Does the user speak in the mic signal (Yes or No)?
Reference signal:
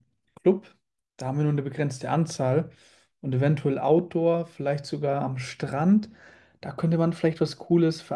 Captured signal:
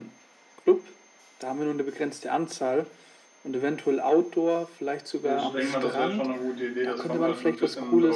Yes